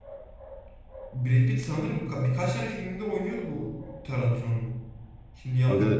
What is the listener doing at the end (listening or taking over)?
taking over